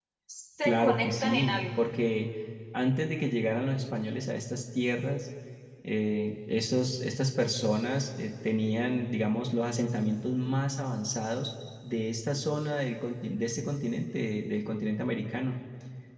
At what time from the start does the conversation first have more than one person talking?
0.6 s

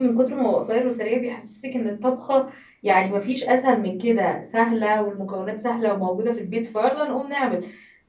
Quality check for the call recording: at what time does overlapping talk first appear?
none

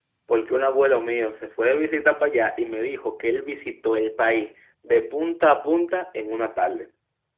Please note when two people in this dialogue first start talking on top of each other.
none

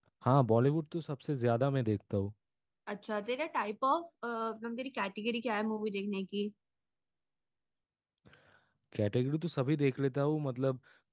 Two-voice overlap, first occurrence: none

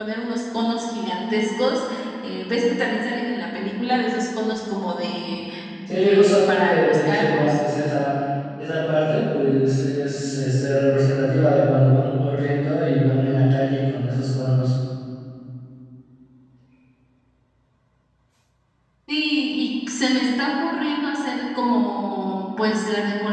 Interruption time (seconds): 5.9 s

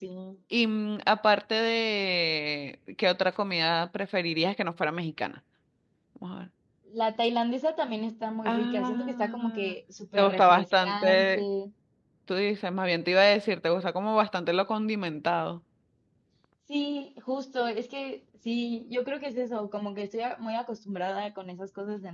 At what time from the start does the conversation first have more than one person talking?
8.4 s

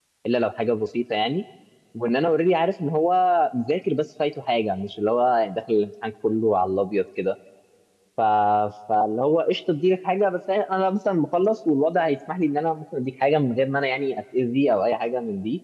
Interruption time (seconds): none

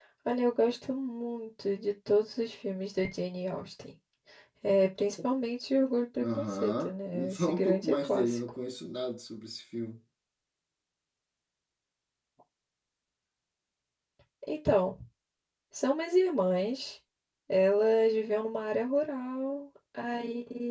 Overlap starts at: 6.2 s

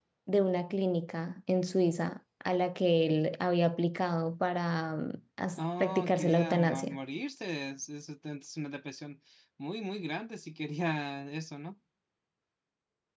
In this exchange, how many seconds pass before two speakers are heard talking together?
5.6 s

